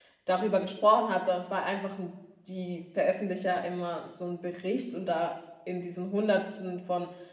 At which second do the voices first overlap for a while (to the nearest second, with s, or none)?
none